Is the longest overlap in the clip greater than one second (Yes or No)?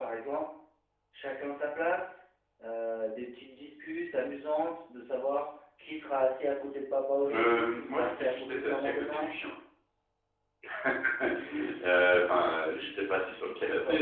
Yes